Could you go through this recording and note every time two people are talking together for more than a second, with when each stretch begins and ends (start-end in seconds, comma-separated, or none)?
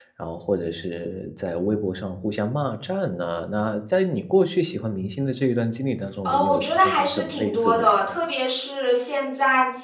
6.2-8.2